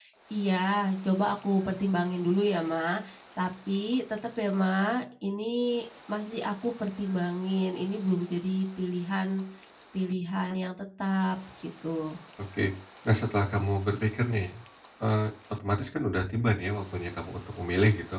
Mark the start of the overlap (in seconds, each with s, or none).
none